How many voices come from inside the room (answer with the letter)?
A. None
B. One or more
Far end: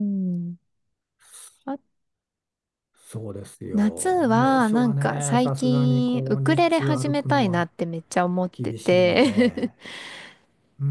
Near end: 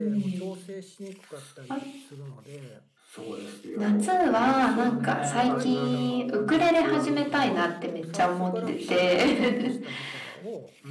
B